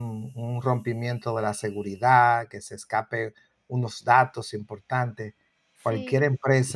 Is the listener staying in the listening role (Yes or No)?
Yes